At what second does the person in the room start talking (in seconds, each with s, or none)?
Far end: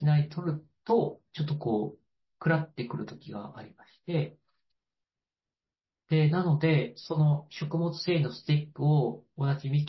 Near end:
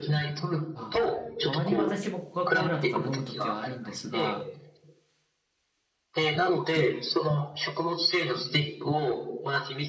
0.7 s